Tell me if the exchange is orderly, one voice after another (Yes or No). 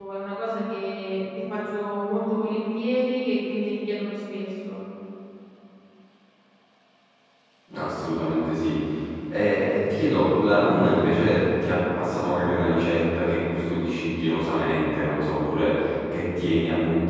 Yes